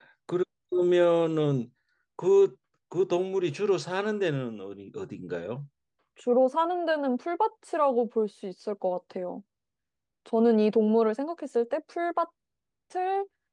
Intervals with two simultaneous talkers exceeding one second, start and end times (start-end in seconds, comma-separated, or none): none